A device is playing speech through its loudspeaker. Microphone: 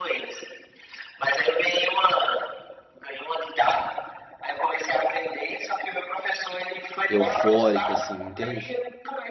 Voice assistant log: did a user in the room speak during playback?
Yes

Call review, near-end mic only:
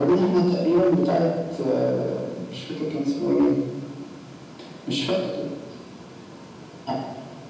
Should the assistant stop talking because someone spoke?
No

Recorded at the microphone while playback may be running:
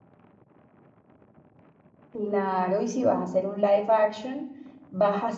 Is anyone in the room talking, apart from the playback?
Yes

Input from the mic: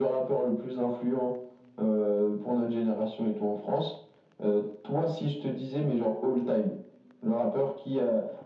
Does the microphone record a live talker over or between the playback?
No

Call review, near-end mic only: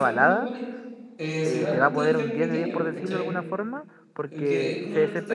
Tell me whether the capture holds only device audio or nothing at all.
No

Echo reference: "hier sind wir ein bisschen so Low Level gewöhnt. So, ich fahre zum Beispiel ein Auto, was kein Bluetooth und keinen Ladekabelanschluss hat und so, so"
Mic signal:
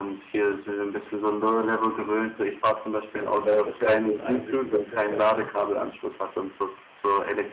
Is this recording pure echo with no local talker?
No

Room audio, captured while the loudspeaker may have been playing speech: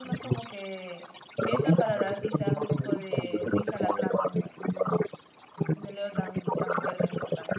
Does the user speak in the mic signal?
Yes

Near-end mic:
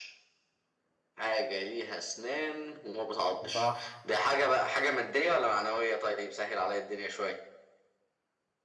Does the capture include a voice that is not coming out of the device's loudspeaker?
Yes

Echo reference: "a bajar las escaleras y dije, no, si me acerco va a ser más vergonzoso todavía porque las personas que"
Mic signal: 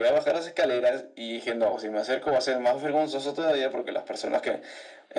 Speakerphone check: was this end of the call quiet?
Yes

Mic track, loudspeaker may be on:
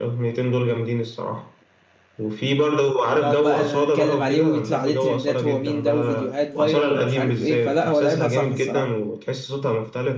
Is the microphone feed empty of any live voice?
No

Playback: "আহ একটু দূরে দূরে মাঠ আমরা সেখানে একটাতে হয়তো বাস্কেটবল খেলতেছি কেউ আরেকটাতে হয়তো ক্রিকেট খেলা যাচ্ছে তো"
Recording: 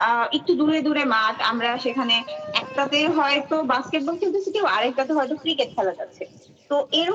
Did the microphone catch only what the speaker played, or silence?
Yes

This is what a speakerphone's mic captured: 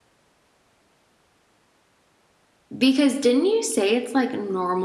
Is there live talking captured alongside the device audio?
Yes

